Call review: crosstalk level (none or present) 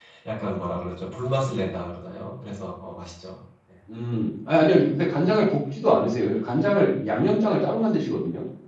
none